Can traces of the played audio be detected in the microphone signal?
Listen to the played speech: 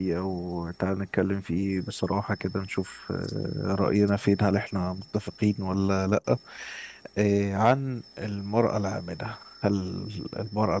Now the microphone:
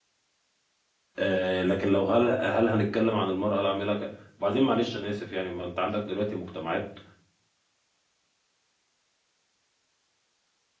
No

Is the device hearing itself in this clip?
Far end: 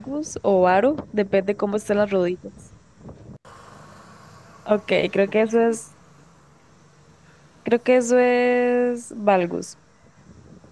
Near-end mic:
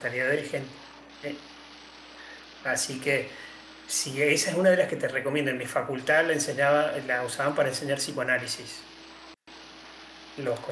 No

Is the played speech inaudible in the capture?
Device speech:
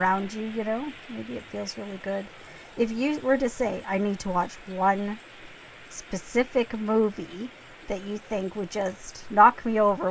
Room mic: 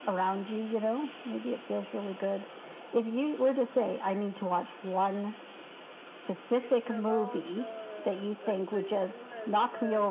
No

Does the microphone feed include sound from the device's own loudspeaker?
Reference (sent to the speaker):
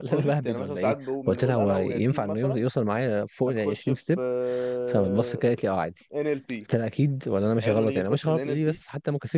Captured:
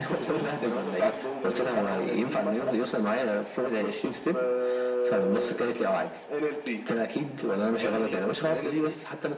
Yes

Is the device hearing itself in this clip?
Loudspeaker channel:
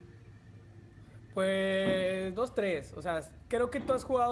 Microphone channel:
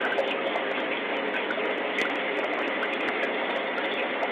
No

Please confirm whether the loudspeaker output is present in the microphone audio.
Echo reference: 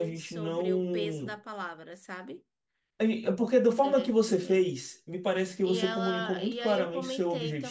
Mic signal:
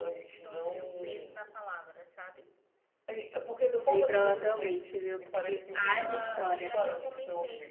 Yes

